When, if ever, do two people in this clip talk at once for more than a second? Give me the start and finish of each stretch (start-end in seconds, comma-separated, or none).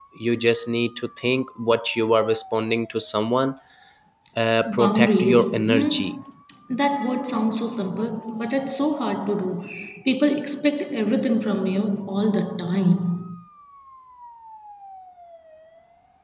4.8-6.1